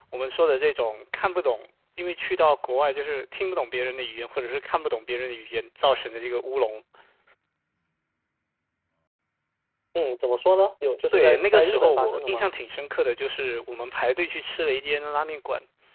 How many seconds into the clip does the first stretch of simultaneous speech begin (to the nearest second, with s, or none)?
11 s